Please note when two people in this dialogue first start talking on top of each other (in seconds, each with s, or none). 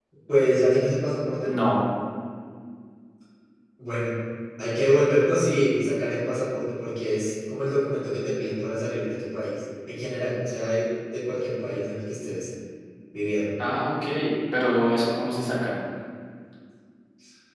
none